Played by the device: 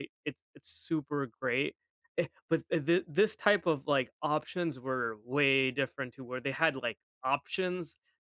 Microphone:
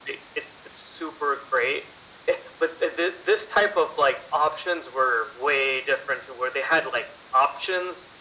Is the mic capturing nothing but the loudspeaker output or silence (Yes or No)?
Yes